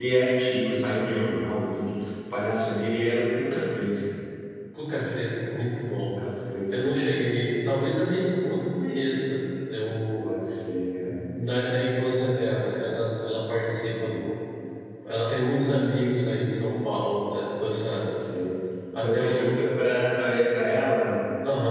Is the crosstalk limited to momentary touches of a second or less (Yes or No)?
Yes